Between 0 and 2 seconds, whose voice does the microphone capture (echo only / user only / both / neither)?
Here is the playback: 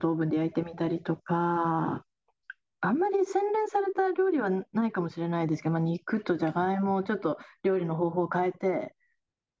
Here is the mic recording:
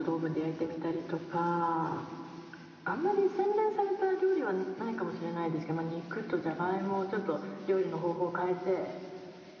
echo only